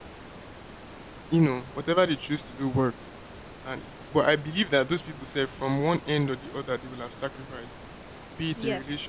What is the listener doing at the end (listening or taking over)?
listening